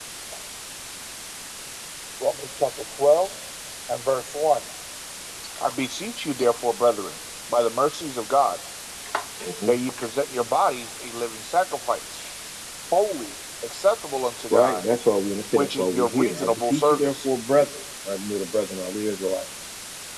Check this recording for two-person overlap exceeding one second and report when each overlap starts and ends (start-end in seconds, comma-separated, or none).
15.6-17.3